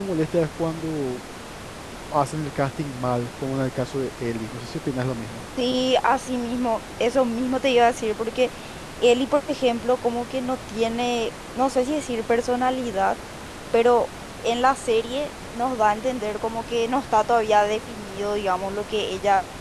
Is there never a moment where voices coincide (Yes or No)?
Yes